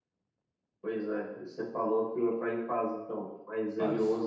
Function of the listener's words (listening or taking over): listening